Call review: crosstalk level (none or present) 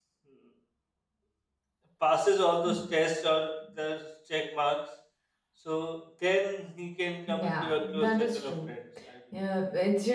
present